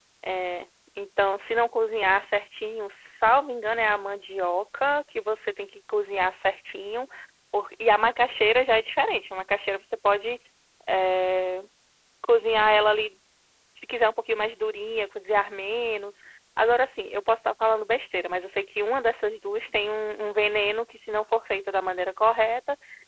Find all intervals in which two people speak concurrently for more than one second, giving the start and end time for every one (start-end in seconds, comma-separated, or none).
none